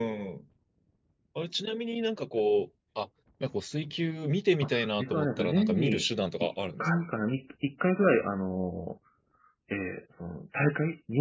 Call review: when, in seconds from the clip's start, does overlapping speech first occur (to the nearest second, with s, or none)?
5 s